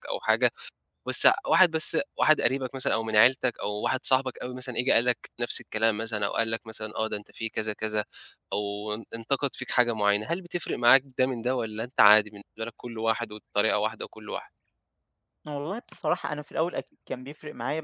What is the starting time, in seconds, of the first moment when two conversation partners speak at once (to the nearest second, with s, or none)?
none